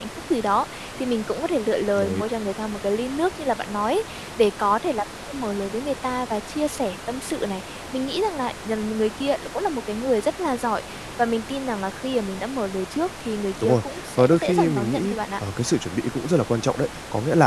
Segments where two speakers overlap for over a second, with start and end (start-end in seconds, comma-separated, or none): 13.6-15.2